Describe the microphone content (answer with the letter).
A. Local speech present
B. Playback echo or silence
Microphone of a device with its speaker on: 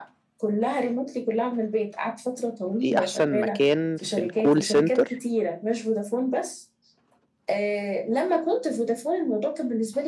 A